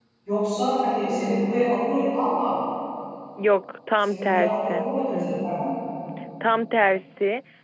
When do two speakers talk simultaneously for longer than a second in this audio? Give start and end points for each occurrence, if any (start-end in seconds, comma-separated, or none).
4.0-5.3